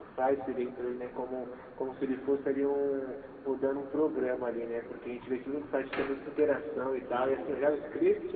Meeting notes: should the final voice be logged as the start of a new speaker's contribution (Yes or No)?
No